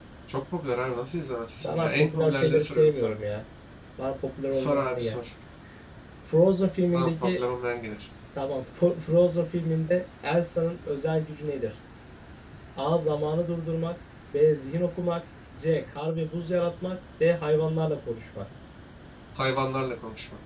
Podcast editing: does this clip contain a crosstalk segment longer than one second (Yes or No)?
Yes